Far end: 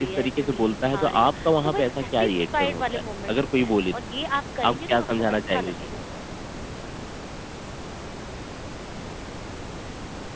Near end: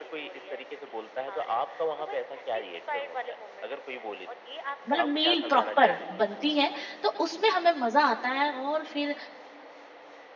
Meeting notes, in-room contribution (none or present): present